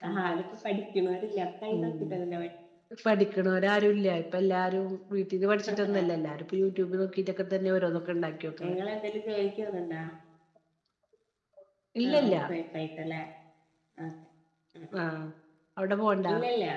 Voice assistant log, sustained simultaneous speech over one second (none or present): none